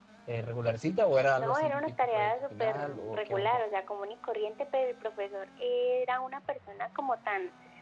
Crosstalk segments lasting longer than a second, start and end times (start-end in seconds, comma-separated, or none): 1.3-3.6